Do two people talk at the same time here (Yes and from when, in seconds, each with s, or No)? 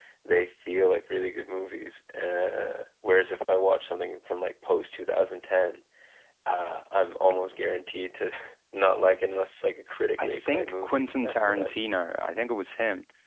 Yes, from 10.2 s